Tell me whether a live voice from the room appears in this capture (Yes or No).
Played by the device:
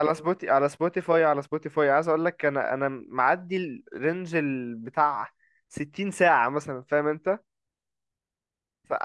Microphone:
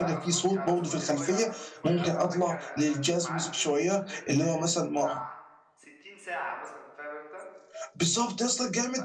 Yes